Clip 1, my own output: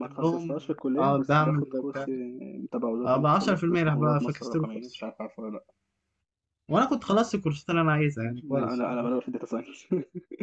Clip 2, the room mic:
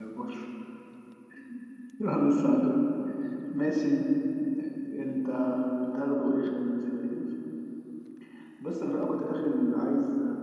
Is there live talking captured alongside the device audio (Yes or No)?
Yes